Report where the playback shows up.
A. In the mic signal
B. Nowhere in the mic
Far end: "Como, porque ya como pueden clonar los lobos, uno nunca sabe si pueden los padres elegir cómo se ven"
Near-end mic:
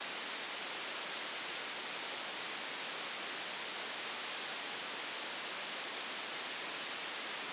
B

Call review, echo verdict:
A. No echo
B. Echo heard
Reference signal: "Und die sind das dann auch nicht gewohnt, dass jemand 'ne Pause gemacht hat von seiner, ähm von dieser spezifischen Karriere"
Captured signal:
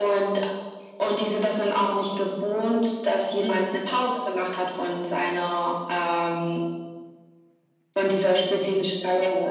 B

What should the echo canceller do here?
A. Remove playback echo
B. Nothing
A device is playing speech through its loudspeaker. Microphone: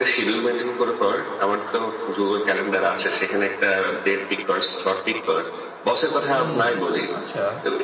A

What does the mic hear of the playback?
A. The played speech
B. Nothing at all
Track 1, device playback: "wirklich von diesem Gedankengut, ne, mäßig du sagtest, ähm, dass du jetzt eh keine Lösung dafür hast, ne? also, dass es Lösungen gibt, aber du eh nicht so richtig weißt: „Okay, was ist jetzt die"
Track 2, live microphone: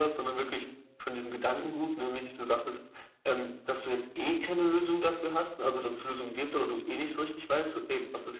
A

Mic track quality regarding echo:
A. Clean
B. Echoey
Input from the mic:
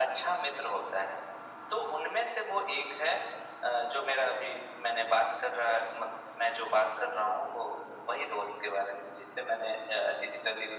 B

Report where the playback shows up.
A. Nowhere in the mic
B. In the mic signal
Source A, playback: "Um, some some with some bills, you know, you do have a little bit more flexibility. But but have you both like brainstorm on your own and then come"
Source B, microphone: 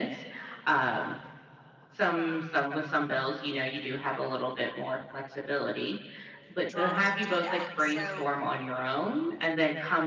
B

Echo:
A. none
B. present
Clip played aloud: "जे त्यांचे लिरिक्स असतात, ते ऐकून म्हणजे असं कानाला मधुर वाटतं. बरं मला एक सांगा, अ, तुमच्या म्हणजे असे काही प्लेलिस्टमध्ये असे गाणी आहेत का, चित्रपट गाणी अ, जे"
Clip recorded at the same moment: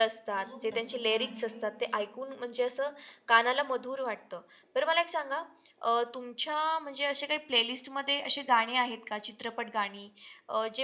B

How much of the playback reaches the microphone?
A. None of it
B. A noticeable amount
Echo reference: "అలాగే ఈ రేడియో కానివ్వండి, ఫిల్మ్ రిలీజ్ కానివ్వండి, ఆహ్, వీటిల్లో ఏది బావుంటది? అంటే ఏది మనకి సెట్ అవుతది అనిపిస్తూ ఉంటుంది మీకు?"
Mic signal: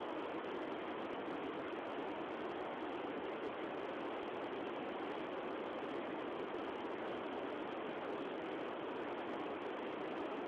A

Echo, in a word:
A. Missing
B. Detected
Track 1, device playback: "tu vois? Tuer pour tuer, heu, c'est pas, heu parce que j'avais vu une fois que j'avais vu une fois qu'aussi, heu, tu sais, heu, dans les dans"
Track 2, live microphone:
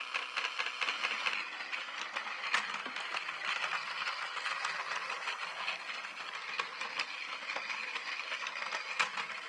A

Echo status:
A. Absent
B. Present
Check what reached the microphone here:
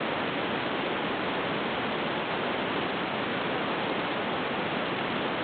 A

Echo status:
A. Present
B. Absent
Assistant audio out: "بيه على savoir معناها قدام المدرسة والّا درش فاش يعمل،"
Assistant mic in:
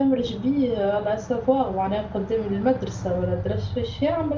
A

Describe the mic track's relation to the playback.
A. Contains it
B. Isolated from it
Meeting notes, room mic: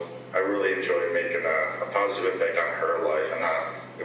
A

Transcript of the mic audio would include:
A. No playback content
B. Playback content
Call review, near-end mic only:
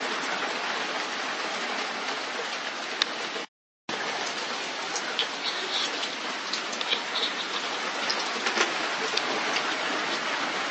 A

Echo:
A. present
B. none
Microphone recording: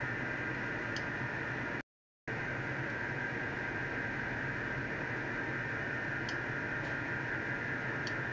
B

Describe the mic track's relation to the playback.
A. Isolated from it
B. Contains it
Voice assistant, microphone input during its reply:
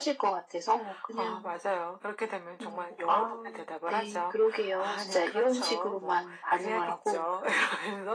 B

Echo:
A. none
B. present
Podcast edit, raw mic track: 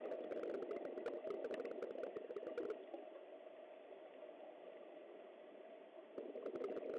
A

